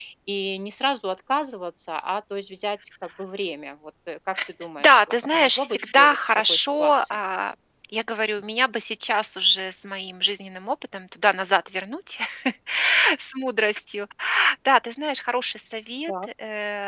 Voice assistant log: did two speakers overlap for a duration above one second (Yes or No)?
Yes